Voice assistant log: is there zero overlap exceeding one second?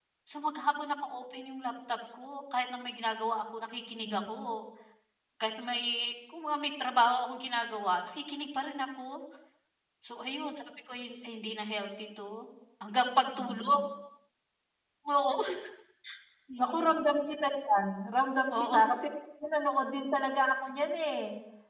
Yes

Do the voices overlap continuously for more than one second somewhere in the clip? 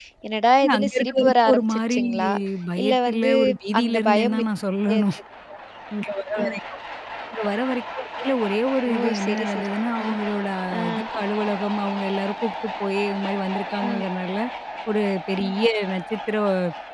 Yes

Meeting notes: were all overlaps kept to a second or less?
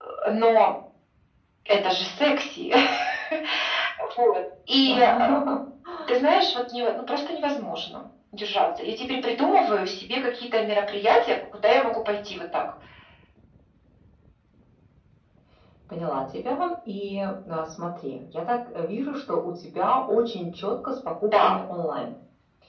Yes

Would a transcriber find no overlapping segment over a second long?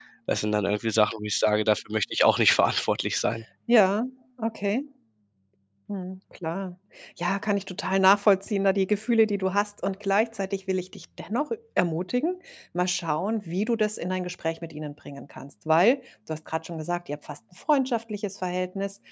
Yes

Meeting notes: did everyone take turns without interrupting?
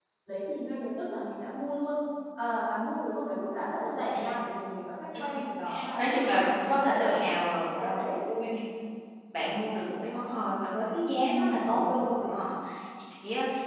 No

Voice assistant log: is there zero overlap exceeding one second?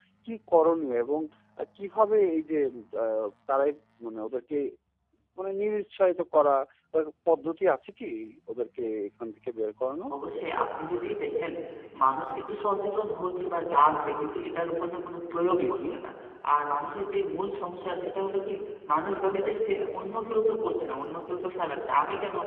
Yes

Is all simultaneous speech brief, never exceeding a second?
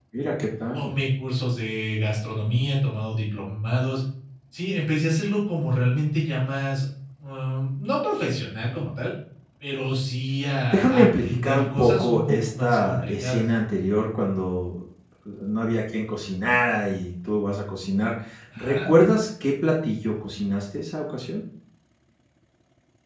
No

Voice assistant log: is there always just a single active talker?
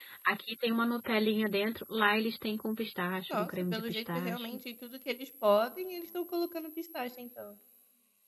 No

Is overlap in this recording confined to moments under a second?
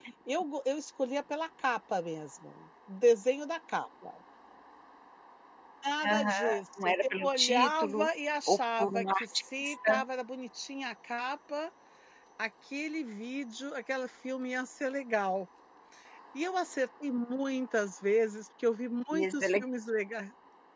No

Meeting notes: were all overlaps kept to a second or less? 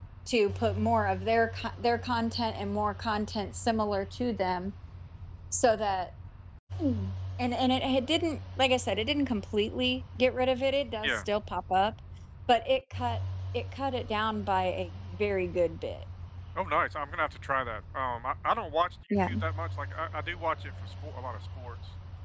Yes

